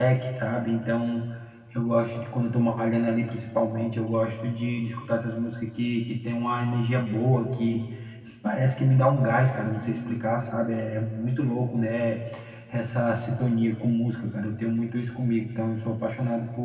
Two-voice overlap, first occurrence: none

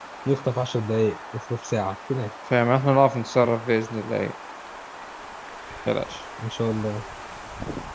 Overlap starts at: none

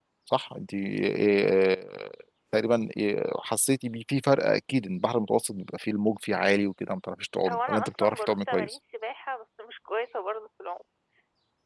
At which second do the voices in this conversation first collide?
7.4 s

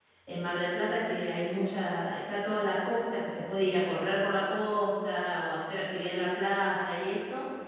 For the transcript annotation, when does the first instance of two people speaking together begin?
none

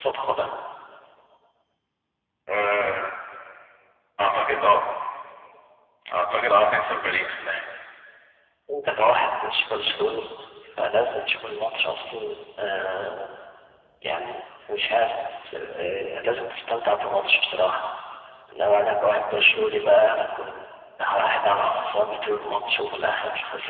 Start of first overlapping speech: none

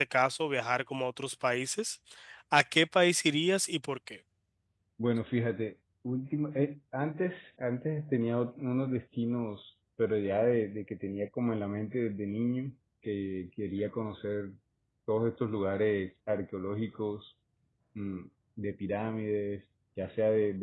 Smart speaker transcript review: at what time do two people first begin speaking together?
none

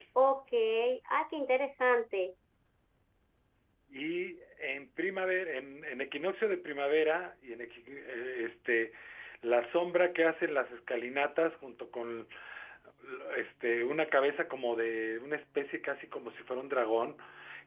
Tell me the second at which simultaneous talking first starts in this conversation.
none

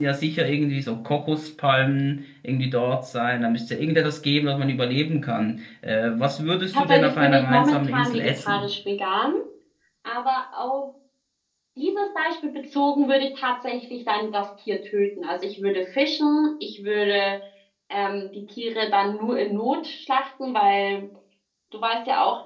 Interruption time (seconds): 6.7 s

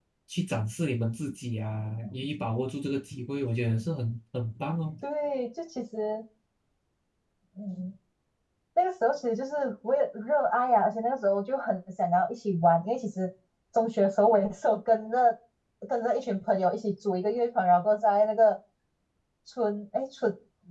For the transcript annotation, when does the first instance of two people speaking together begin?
none

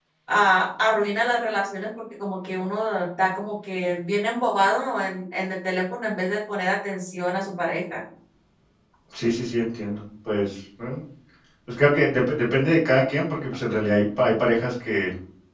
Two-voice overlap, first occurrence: none

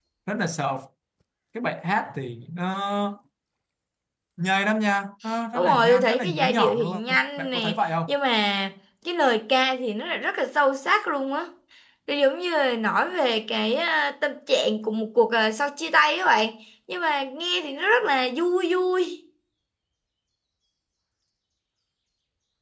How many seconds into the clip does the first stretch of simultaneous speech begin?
5.5 s

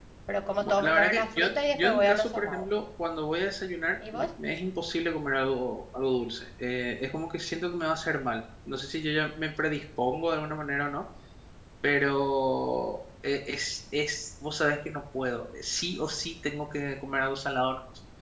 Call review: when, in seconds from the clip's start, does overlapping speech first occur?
0.6 s

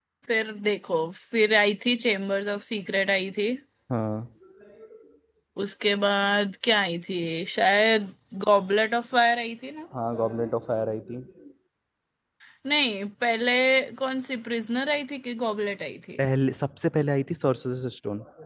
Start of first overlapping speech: none

